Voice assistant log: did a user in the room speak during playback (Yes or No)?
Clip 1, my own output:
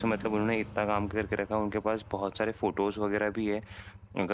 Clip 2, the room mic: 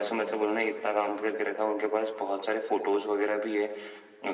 No